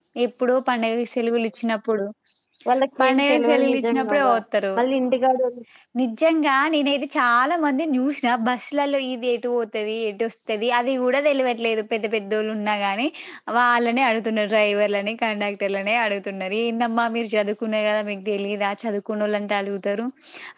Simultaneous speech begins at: 3.0 s

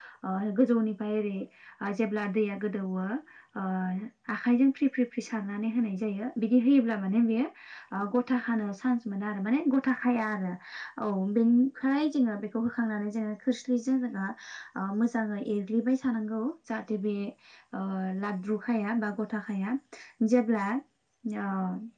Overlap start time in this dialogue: none

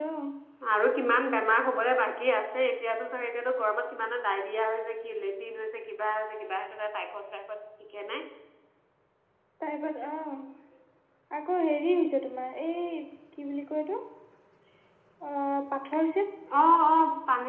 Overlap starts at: none

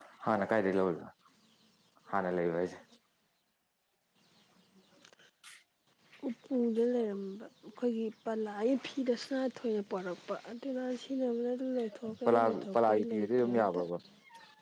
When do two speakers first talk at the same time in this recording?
12.0 s

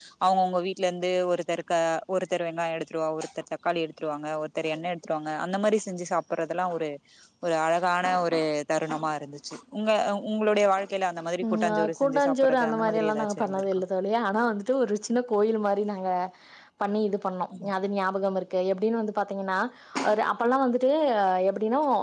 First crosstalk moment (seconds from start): 11.4 s

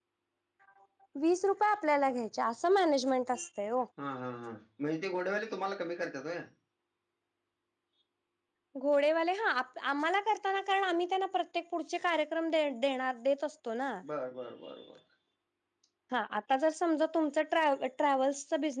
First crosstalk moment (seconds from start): none

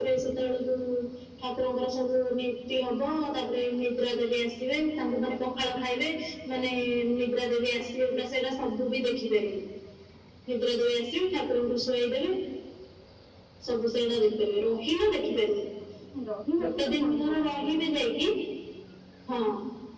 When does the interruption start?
16.6 s

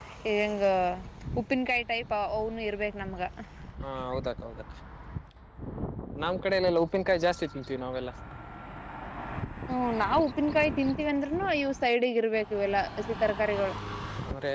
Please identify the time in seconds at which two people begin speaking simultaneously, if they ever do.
none

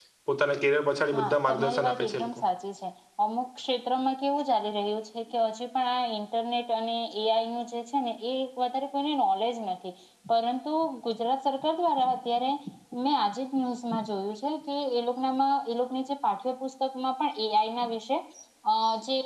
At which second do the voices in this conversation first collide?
1.1 s

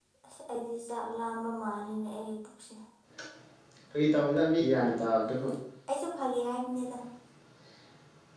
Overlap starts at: none

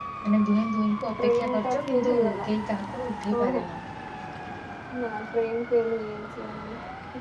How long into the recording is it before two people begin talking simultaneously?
1.2 s

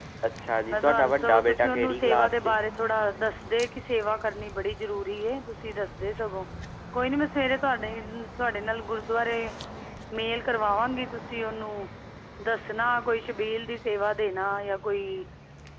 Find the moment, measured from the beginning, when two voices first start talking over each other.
0.7 s

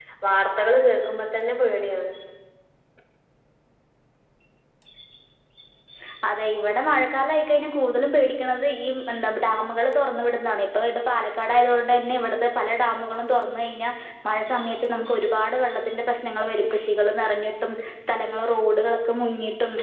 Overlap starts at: none

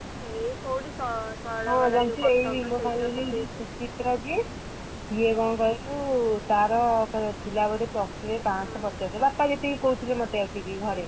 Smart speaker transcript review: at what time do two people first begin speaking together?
1.7 s

